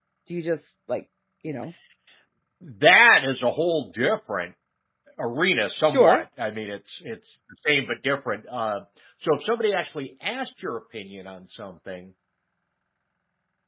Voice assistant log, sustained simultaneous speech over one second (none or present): none